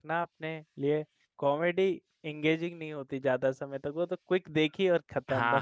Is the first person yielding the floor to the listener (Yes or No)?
Yes